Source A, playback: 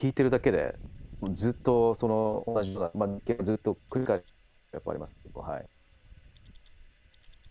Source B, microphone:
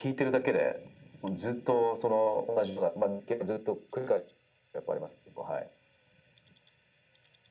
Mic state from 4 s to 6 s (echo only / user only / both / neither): echo only